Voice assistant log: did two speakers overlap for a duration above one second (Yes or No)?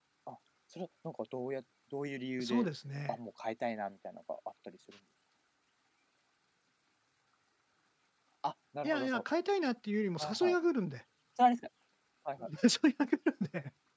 No